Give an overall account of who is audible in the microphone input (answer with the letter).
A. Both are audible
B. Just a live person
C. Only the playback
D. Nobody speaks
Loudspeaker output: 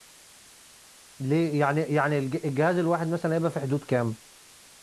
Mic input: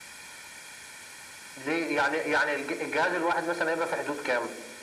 C